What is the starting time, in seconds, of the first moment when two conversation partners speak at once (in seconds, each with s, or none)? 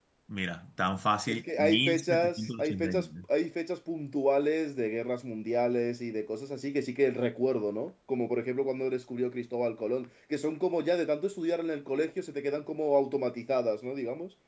1.3 s